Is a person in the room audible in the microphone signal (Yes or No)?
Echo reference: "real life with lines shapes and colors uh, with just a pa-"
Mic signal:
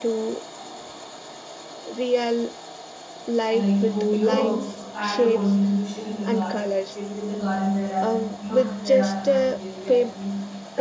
Yes